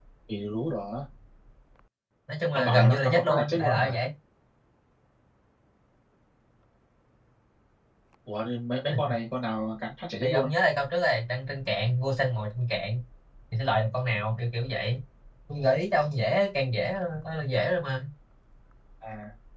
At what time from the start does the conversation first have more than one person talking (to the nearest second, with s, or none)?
3 s